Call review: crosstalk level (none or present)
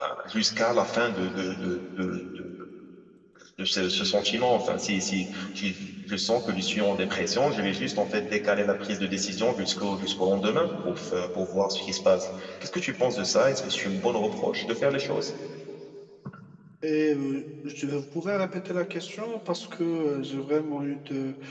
none